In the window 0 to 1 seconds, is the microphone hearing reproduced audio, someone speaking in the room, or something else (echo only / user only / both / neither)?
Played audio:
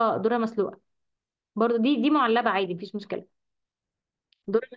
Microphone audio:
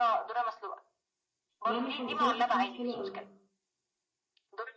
echo only